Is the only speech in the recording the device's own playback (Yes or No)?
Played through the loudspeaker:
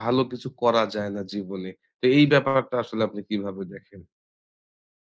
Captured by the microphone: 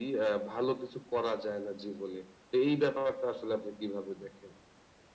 Yes